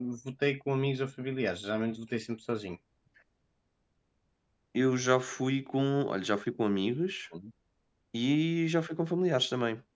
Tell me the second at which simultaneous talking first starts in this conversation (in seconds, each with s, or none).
none